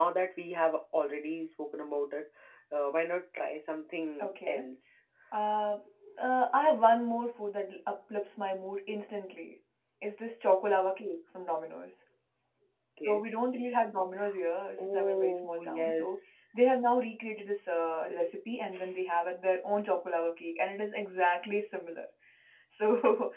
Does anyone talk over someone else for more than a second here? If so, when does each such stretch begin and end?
14.8-16.1

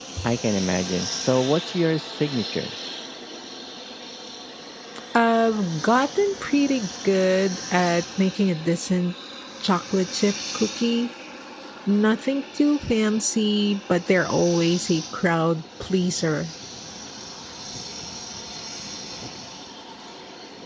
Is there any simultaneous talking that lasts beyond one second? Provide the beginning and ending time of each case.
none

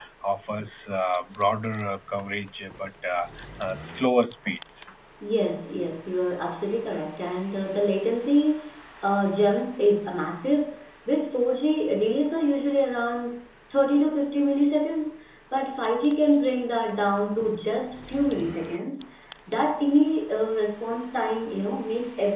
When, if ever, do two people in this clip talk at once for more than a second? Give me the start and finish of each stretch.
none

